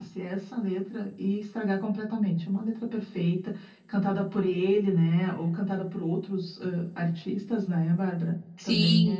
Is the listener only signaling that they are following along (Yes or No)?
No